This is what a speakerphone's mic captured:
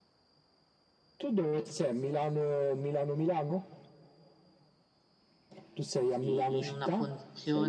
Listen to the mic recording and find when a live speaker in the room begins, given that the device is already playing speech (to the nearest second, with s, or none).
6 s